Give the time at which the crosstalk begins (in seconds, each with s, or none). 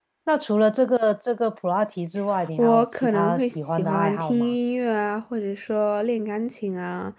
2.6 s